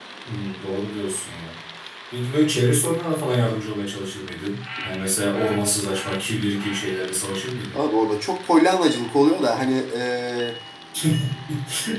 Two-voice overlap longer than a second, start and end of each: none

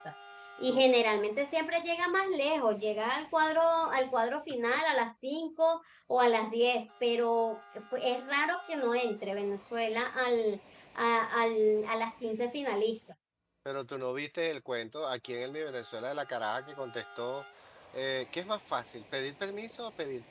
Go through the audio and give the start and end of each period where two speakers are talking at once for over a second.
none

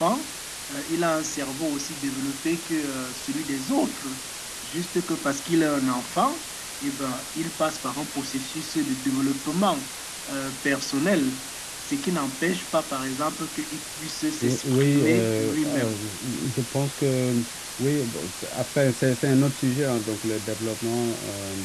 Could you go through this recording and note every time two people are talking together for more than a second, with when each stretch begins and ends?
14.4-16.0

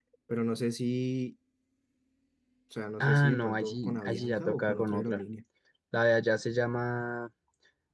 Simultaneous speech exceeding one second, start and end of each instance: 3.0-5.2

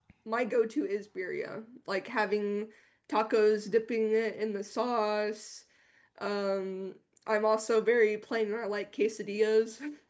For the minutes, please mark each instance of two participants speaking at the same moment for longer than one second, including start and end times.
none

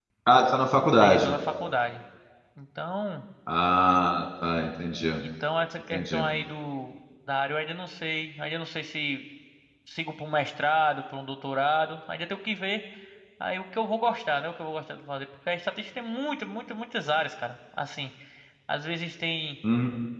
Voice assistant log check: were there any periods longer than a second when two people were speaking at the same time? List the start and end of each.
none

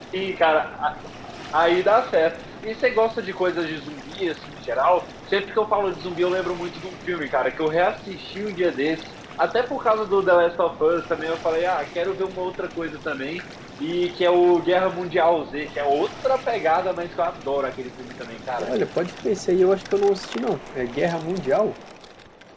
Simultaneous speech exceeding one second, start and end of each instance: none

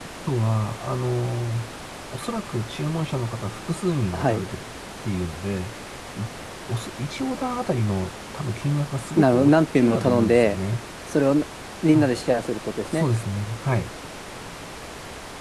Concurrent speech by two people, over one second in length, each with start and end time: 9.2-10.6

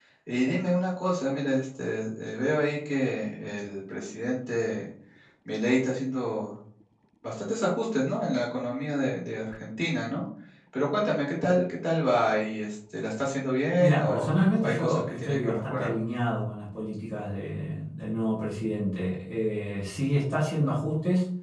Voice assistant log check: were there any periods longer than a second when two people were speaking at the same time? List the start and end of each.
13.8-15.9

